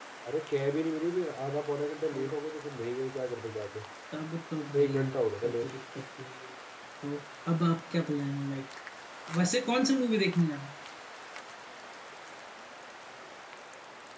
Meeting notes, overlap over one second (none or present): none